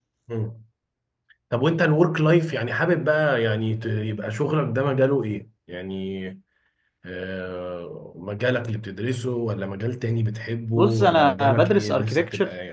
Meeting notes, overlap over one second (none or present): present